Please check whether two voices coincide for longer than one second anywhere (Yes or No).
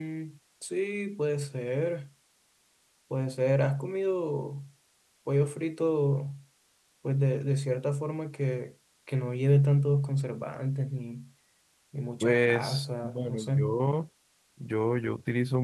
Yes